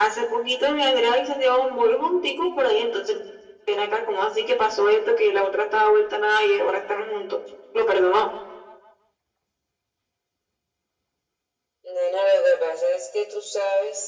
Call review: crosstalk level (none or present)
none